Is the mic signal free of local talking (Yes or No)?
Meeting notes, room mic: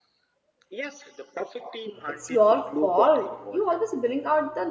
No